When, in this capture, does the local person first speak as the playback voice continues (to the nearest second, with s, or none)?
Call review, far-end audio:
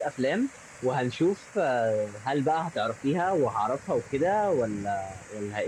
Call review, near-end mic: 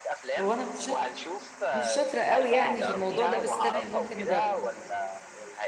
0 s